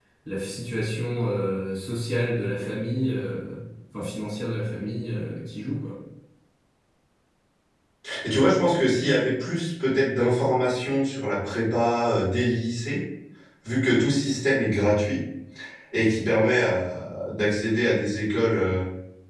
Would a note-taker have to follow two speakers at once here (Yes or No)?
No